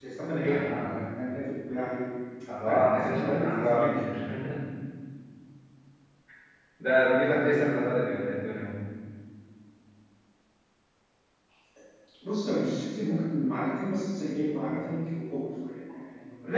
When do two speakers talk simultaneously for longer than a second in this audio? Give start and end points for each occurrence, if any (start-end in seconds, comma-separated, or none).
2.6-4.0